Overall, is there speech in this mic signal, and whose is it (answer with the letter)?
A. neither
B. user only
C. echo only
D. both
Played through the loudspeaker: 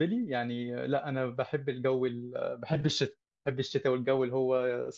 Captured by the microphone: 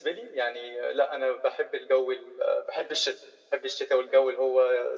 C